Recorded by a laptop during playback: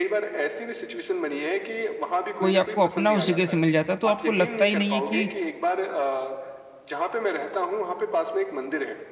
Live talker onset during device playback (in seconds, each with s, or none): 2.4 s